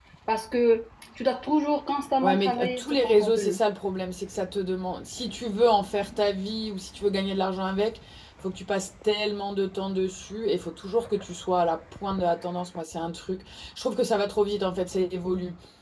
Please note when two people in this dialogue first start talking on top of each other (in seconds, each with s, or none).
2.2 s